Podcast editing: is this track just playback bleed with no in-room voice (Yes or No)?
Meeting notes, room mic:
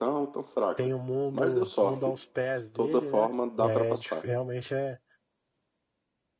No